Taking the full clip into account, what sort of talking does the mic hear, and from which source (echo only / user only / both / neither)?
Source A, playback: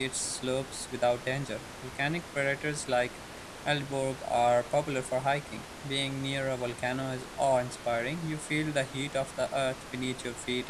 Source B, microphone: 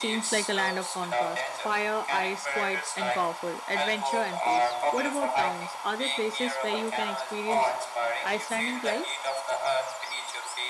both